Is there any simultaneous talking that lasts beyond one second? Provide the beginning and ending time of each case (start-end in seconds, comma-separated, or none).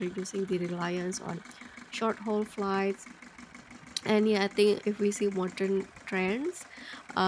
none